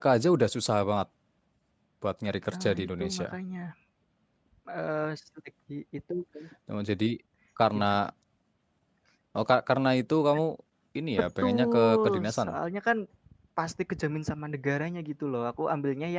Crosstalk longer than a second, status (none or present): present